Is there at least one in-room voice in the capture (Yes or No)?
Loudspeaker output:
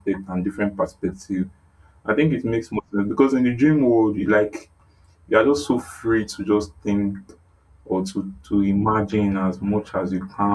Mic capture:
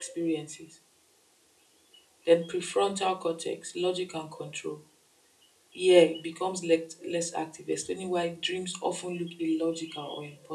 Yes